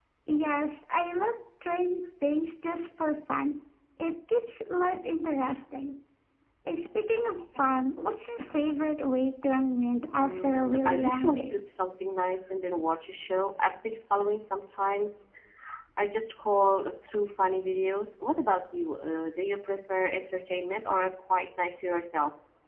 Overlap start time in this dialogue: 10.1 s

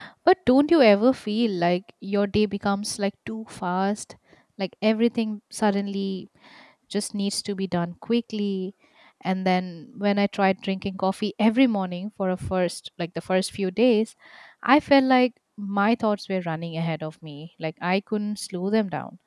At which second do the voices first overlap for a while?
none

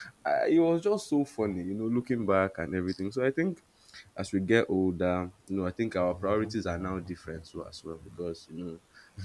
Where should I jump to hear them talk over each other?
6.0 s

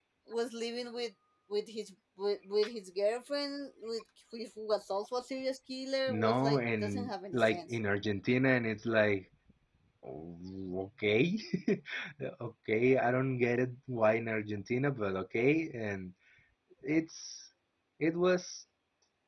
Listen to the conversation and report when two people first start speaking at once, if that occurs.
6.1 s

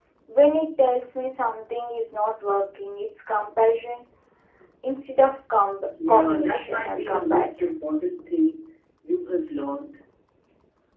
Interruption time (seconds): 6.0 s

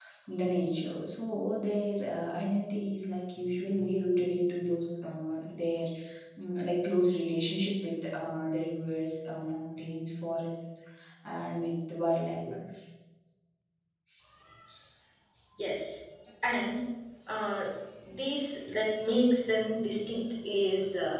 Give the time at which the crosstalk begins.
none

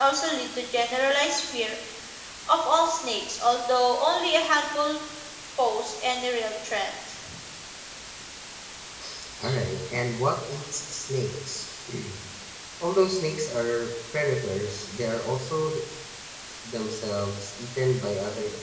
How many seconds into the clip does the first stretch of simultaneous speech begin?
none

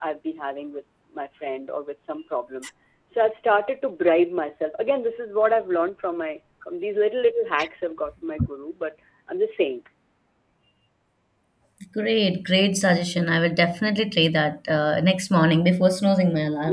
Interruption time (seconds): none

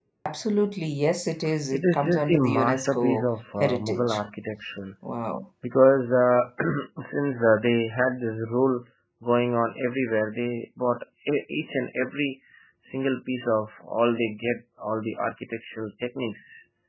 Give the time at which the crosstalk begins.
1.7 s

